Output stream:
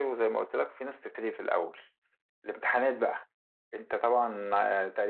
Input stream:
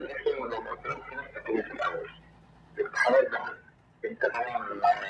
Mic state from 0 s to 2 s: echo only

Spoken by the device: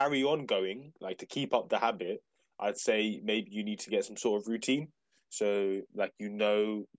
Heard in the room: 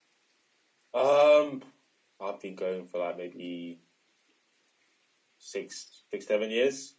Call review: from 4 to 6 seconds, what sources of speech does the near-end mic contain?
user only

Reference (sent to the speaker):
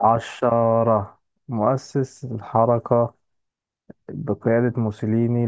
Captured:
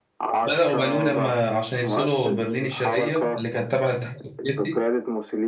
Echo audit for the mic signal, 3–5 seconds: both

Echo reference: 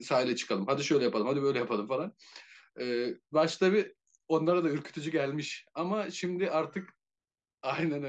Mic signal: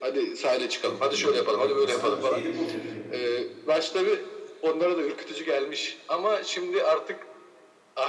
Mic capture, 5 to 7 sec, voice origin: echo only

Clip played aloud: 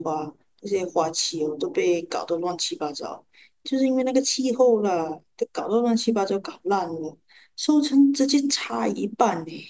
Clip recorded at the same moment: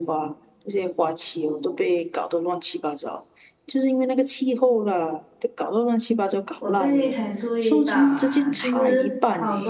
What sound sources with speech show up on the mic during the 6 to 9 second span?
both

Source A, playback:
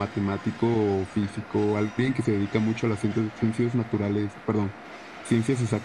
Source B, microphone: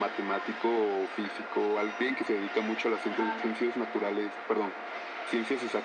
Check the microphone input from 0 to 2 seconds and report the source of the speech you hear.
echo only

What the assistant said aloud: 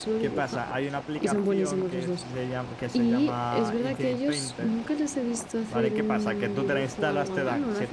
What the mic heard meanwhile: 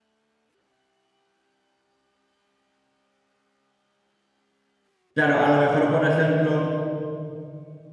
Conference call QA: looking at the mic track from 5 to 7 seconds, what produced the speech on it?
user only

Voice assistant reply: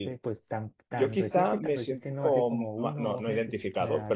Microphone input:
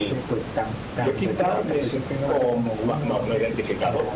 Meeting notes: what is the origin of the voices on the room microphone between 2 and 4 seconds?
echo only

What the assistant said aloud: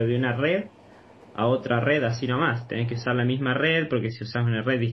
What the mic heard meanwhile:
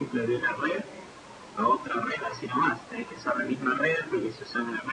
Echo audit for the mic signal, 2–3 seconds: echo only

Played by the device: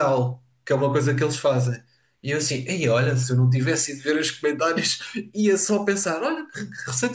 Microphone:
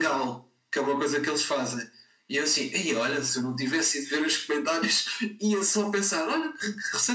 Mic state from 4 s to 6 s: echo only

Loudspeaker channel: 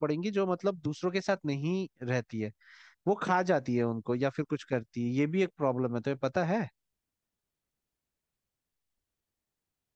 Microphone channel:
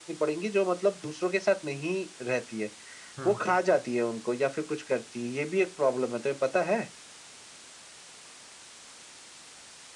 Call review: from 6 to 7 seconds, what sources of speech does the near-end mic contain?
echo only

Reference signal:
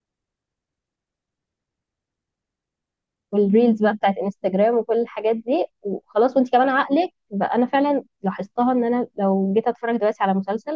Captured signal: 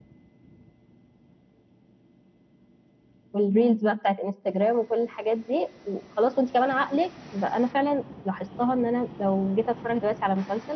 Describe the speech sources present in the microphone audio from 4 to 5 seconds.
echo only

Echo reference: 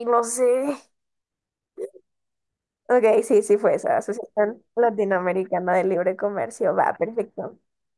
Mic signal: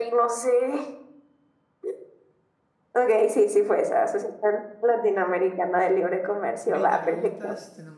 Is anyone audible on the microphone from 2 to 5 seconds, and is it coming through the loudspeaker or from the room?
echo only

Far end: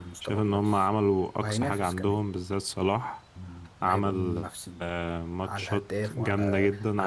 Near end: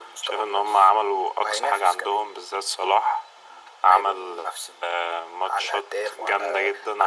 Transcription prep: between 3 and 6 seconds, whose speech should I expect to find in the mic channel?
echo only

